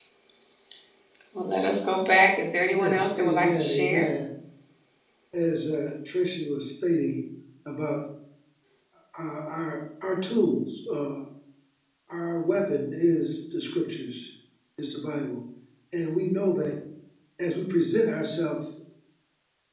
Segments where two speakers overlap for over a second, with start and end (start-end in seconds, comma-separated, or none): 2.7-4.1